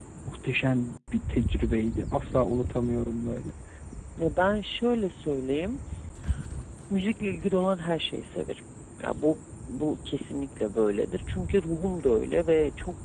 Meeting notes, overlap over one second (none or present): none